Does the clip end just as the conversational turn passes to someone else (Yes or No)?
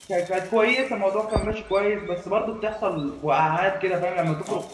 Yes